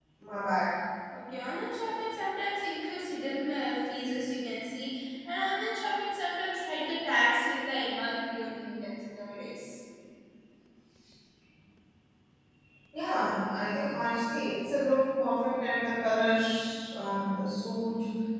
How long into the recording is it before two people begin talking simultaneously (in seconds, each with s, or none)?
none